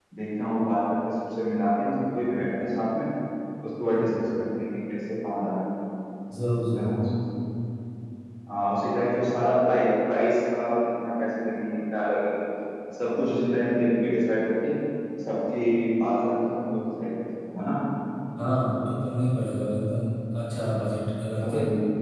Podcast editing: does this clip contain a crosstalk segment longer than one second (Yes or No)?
No